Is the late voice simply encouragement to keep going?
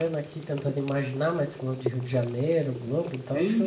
No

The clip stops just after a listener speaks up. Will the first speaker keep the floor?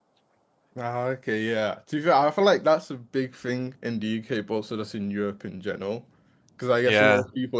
Yes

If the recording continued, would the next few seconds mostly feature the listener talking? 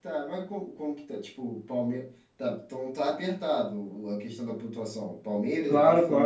Yes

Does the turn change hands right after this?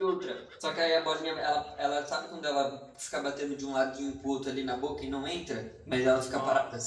No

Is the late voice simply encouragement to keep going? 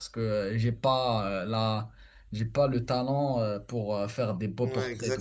No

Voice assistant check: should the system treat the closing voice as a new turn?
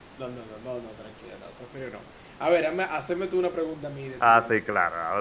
Yes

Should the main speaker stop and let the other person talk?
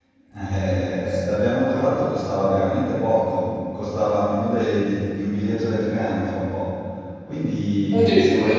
No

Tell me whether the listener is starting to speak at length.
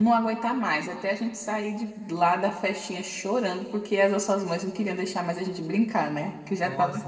Yes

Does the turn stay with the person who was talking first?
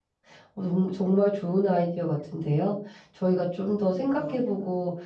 Yes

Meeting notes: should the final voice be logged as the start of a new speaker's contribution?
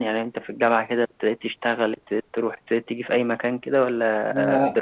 Yes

